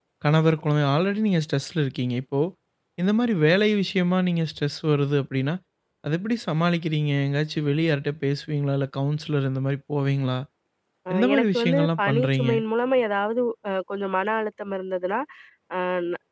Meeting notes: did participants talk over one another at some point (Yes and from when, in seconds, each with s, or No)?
Yes, from 11.2 s